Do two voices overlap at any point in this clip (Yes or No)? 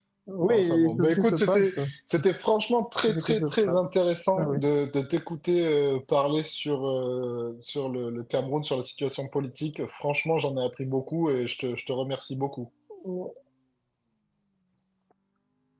Yes